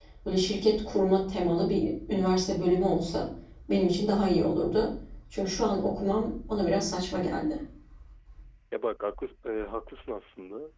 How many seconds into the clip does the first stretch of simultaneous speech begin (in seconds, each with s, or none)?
none